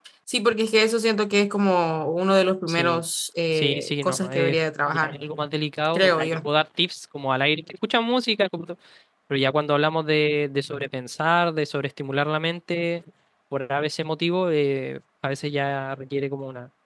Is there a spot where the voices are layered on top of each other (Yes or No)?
Yes